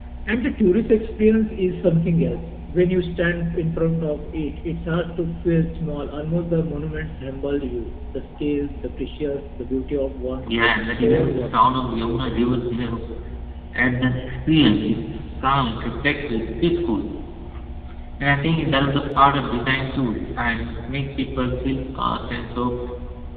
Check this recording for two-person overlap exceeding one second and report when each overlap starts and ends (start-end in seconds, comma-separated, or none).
10.5-11.7